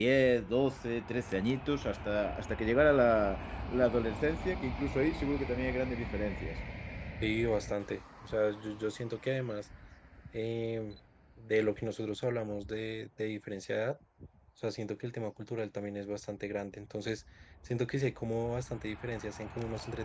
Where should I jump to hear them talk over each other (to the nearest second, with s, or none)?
none